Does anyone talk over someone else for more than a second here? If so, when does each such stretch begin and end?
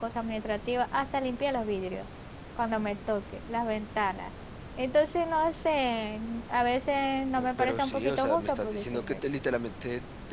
7.3-9.2

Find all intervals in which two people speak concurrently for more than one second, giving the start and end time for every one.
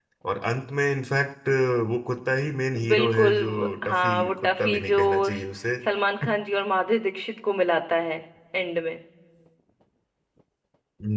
2.9-5.4

